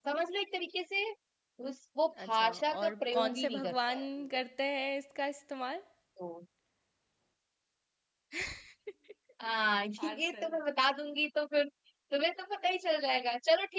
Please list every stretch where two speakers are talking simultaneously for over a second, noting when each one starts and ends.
2.3-4.1

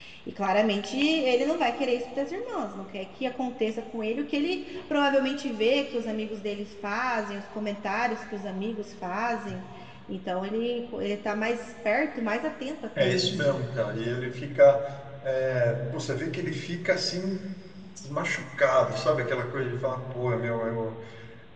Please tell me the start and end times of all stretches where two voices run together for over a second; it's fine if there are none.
none

